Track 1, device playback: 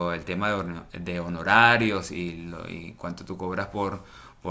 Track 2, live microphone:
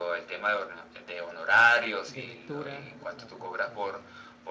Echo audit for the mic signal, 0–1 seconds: echo only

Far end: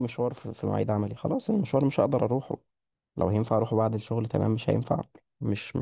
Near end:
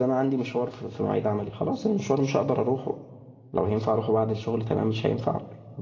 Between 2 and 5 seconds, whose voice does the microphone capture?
echo only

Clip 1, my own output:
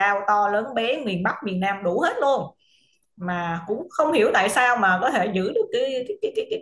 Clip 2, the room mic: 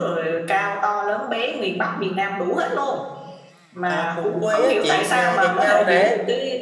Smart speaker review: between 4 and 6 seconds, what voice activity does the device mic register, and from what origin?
both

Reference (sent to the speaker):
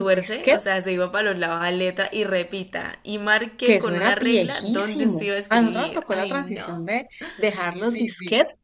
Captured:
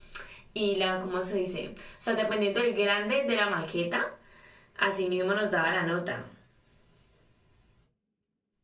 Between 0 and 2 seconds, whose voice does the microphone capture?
user only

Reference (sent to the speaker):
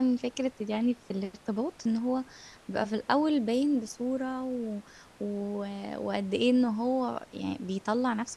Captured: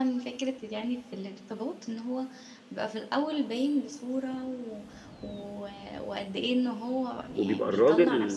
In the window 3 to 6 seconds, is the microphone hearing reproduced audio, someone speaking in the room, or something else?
echo only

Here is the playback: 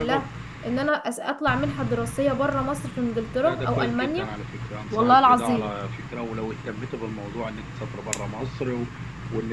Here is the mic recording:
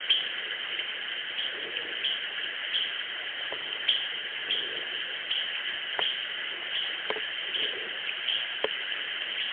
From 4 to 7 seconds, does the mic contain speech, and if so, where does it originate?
neither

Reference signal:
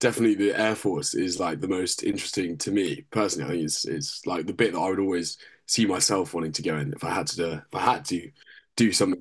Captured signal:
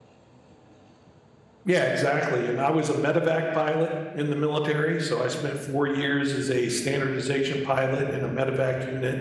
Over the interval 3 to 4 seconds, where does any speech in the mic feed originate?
user only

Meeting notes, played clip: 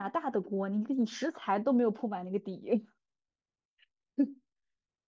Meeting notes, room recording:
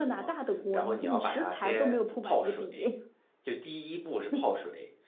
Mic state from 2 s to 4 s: both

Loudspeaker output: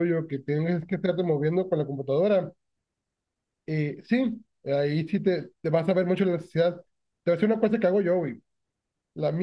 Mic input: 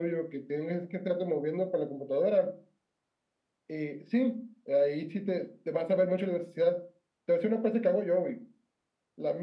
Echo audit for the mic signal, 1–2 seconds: echo only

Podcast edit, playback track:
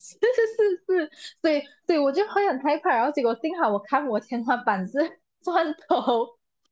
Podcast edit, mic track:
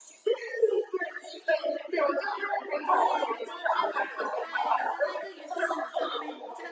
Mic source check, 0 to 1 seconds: echo only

